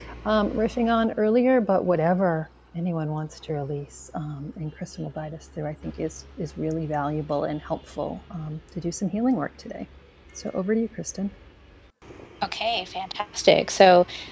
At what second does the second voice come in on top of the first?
none

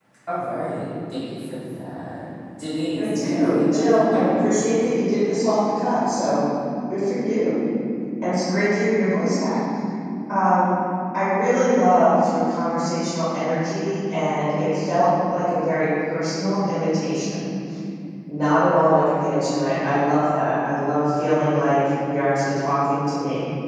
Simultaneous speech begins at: 3.0 s

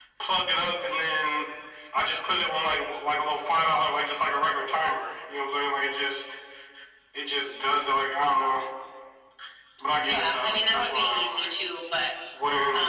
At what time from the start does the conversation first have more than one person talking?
10.0 s

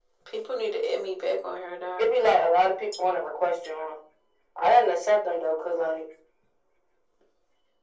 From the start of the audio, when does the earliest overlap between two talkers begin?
none

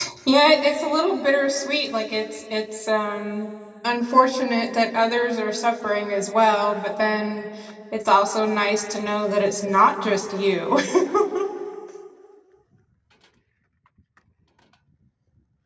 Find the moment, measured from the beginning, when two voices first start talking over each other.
none

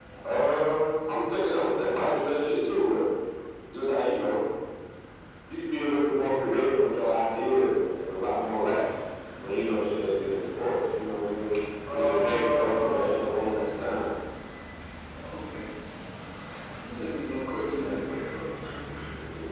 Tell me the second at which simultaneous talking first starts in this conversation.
11.9 s

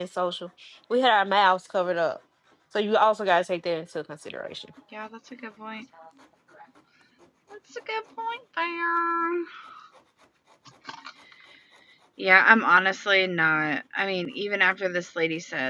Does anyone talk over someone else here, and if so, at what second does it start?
none

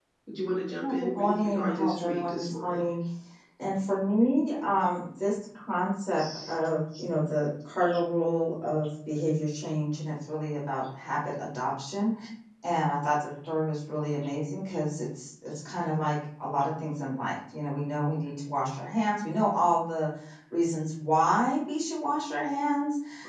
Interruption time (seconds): 0.8 s

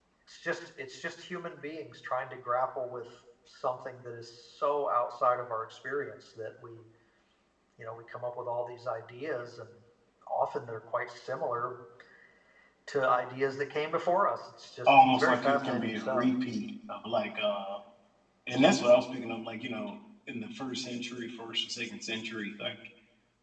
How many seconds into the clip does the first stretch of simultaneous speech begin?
14.9 s

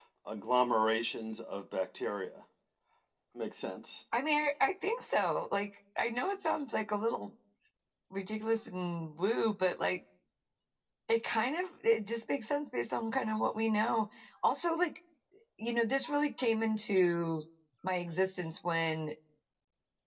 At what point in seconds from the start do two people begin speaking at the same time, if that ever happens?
none

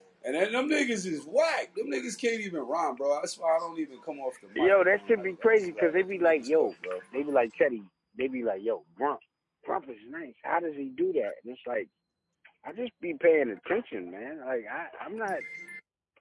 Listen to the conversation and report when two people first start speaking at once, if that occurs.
4.5 s

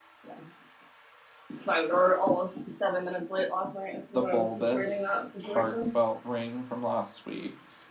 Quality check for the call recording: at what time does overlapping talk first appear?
4.1 s

